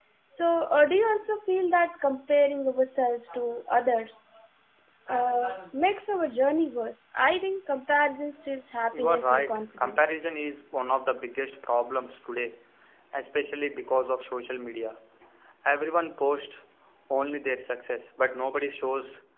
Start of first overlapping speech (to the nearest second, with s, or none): 9 s